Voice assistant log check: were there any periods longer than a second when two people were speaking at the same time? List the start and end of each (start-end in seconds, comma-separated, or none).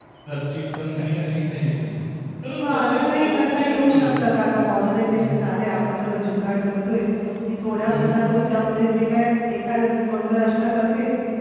2.5-4.2